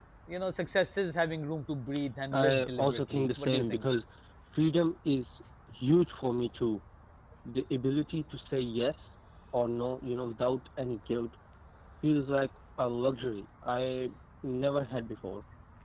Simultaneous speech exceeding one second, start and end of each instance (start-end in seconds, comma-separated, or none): 2.3-3.9